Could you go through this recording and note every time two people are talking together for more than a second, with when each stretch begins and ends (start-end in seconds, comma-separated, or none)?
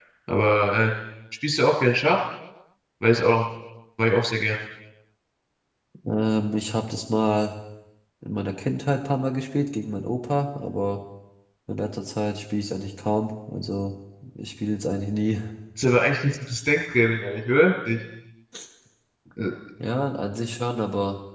none